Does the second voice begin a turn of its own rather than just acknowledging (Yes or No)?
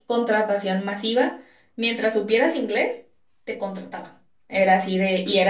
No